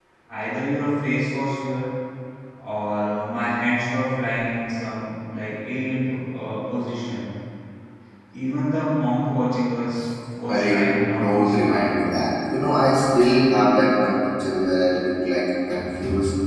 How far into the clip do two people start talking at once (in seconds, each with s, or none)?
10.5 s